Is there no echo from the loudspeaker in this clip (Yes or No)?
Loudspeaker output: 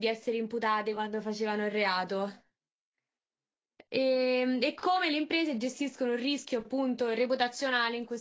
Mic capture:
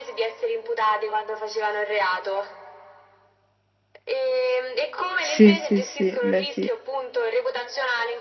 No